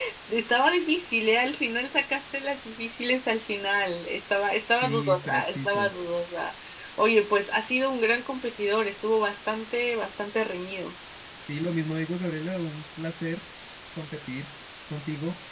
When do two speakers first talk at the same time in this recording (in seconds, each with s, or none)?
4.7 s